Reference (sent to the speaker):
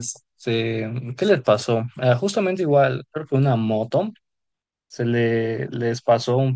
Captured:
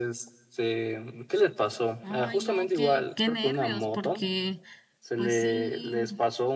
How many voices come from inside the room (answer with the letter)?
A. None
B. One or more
B